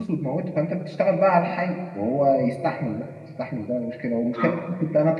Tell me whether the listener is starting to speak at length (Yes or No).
No